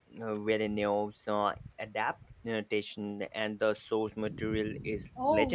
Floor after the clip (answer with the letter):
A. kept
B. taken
B